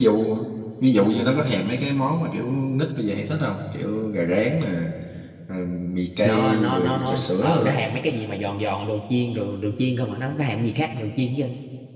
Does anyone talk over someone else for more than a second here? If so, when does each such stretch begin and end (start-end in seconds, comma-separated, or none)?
6.2-7.8